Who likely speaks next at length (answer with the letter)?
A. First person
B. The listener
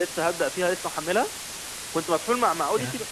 A